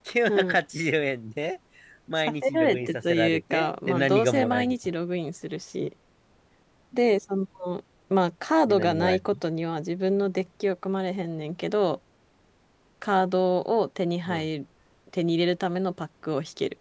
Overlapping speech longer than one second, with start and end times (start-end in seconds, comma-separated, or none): 2.2-4.8